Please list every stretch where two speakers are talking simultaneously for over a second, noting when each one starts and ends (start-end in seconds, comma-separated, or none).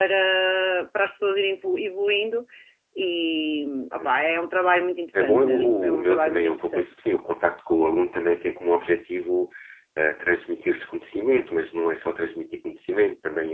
5.1-6.8